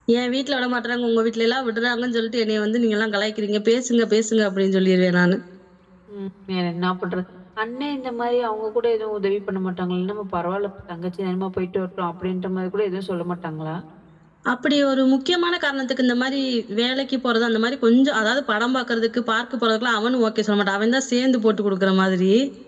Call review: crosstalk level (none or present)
none